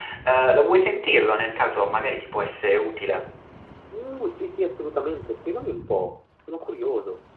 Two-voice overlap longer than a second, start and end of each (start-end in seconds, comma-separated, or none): none